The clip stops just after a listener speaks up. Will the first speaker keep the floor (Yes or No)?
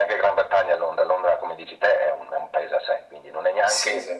Yes